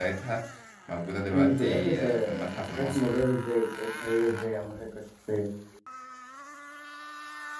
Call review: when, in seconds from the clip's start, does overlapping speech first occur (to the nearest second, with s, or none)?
1 s